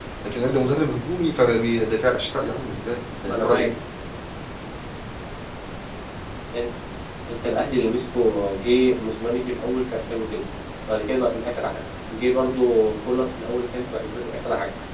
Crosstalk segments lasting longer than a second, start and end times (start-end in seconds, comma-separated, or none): none